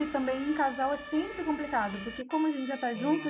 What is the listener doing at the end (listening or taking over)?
listening